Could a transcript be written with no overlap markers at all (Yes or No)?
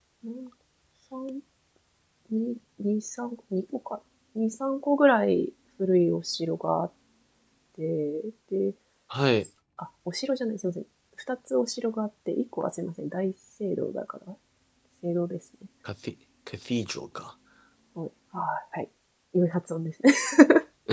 Yes